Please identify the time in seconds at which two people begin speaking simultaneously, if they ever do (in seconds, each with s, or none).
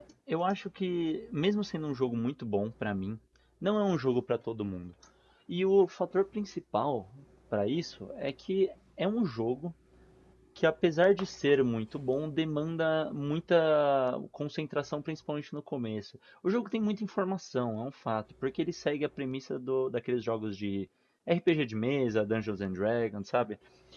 none